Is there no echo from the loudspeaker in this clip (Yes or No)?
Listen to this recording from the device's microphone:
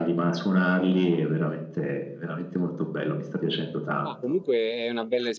No